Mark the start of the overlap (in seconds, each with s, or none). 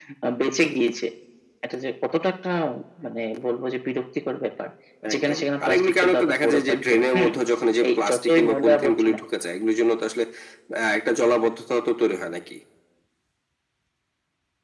5.1 s